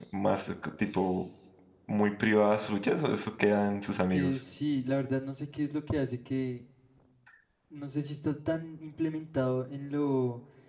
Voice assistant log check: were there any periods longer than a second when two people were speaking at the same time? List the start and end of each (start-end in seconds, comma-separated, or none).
none